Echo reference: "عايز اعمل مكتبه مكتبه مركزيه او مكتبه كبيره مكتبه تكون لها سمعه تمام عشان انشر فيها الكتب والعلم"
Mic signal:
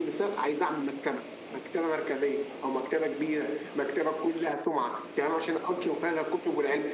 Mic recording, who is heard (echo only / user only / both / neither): echo only